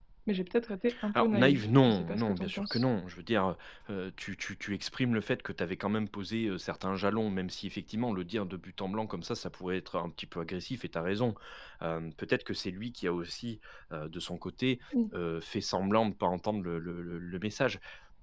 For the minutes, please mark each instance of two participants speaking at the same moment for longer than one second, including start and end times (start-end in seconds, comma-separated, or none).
1.1-2.8